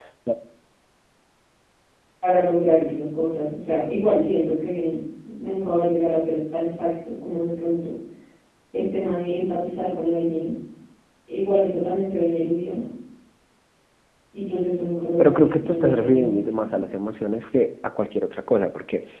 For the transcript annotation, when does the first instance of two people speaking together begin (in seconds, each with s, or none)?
15.2 s